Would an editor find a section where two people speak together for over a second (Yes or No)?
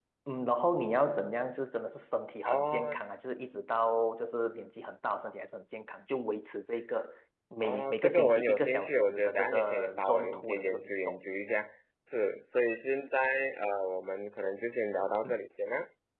Yes